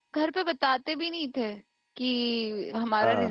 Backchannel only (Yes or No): Yes